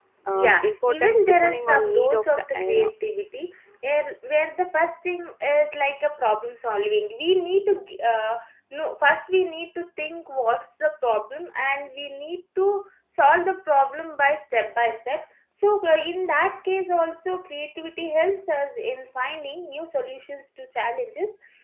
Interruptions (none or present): present